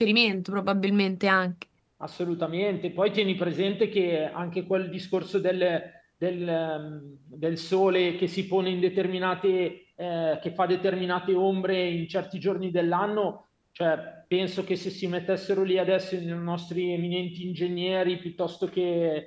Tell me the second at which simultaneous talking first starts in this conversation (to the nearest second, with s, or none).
none